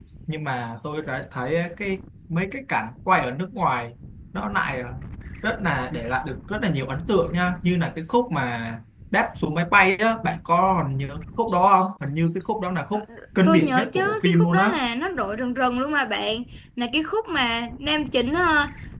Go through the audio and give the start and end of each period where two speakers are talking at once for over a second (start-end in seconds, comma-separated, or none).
13.4-14.7